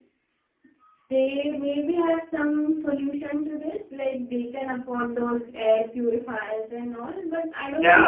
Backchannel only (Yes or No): No